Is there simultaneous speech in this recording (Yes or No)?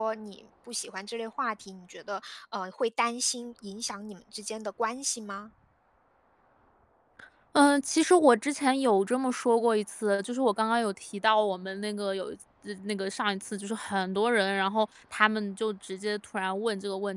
No